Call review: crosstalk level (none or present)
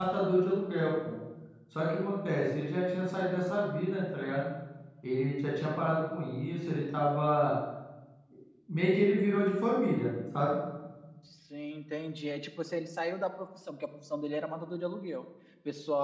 none